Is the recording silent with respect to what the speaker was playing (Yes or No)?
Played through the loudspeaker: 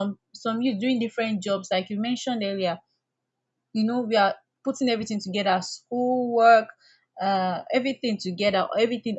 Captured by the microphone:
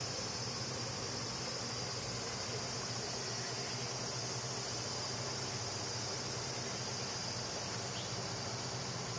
Yes